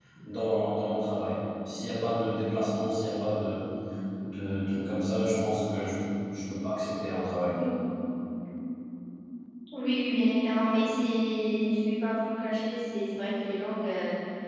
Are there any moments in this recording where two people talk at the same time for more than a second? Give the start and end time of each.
none

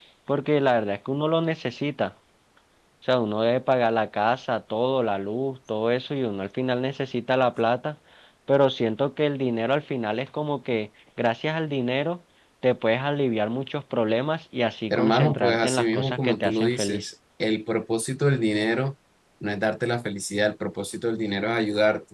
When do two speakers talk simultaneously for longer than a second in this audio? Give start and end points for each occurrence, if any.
14.9-17.1

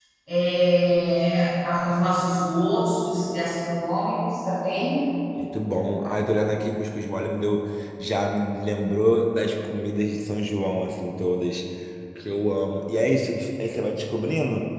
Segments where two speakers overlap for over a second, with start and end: none

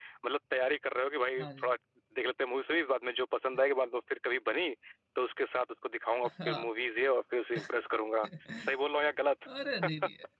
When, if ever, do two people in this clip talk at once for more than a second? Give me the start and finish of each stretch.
none

